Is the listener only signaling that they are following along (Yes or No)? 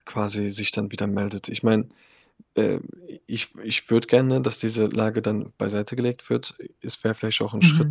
Yes